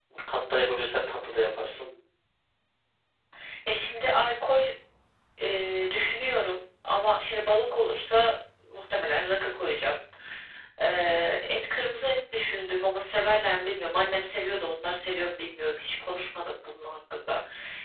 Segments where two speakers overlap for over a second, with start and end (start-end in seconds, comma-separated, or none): none